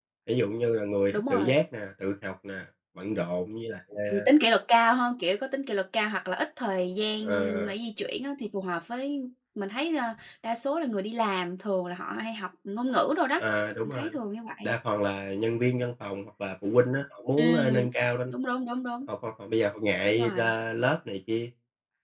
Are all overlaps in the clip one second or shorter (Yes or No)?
Yes